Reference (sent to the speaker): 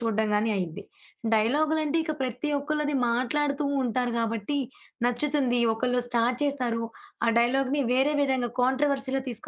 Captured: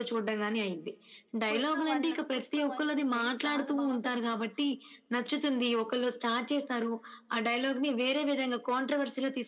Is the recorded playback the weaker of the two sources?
No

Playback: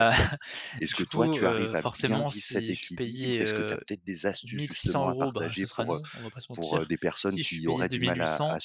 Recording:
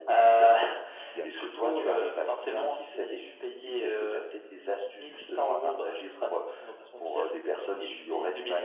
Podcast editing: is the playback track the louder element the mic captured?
Yes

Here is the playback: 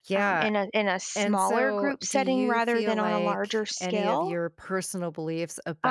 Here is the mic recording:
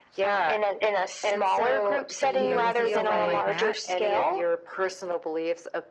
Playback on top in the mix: Yes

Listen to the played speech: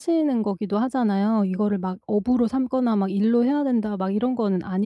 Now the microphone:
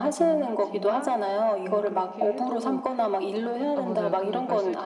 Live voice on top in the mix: No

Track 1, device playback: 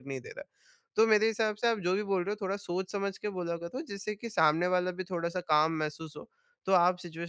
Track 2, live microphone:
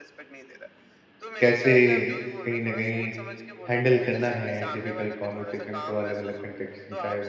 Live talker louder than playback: Yes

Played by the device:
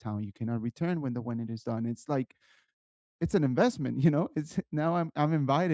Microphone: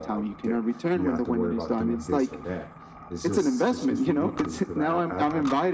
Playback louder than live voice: Yes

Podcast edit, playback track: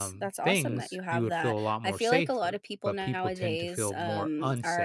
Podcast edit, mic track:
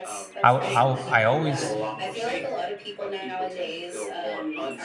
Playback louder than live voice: No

